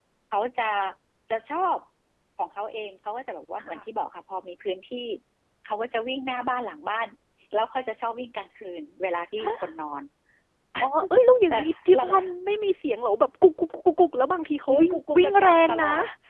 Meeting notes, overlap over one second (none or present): present